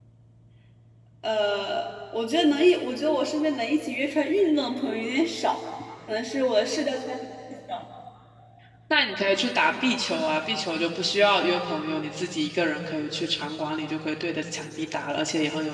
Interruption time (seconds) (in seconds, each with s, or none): none